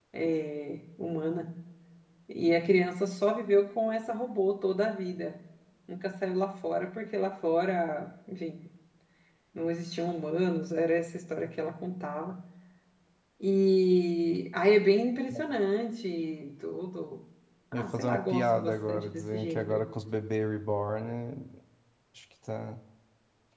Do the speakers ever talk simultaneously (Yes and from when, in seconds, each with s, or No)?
Yes, from 17.7 s